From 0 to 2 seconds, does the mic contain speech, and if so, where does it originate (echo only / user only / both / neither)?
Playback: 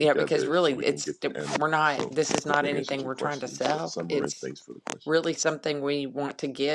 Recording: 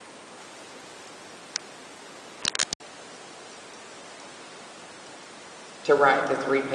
neither